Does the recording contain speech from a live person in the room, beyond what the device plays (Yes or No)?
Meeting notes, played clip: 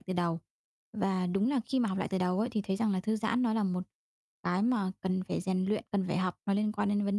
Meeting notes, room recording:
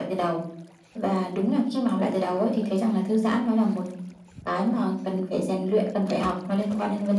No